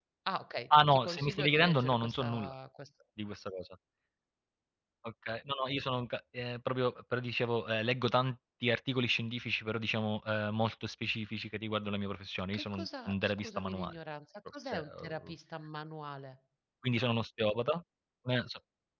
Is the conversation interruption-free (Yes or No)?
No